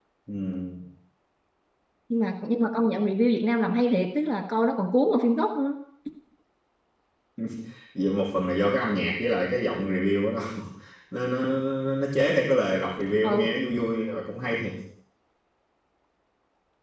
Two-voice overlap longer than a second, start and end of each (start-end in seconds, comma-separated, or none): none